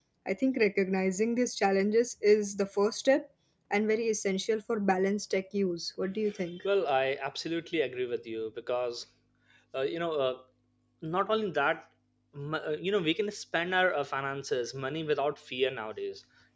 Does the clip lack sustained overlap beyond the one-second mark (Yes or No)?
Yes